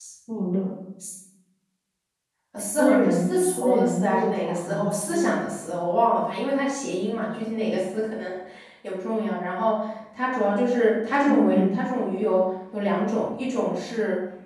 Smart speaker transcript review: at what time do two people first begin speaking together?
2.6 s

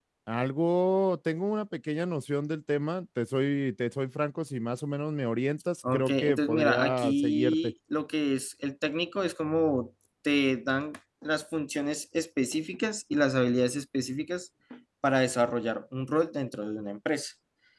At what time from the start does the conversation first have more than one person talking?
5.8 s

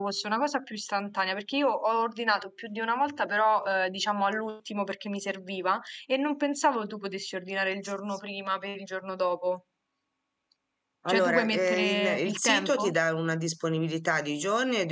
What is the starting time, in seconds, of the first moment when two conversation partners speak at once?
11.1 s

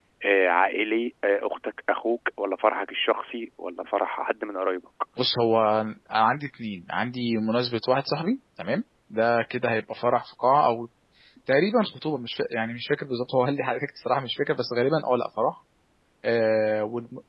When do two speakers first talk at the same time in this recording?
none

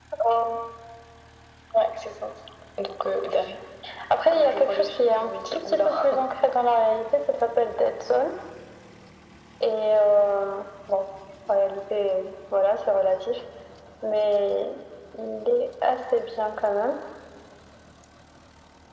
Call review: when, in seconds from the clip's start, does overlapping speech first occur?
4.3 s

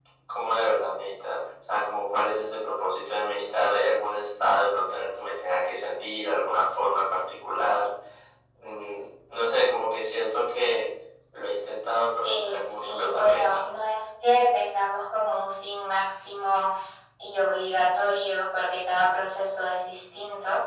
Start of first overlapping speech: 12.2 s

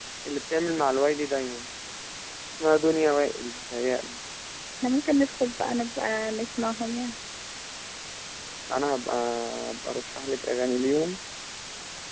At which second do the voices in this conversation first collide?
none

